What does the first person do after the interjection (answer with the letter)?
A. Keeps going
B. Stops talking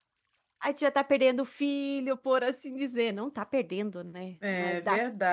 B